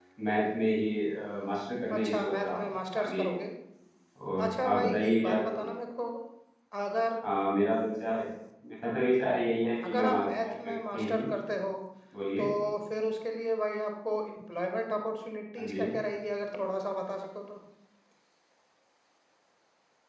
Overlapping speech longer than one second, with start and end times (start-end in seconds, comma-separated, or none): 2.0-3.3, 4.5-5.7, 9.8-11.2